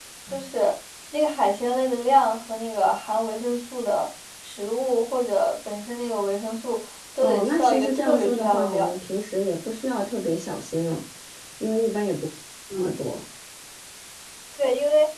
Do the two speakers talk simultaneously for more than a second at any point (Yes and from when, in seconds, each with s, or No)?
Yes, from 7.2 s